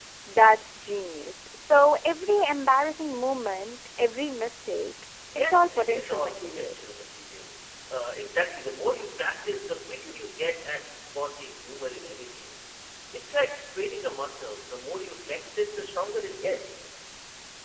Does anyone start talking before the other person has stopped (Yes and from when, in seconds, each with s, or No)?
Yes, from 5.3 s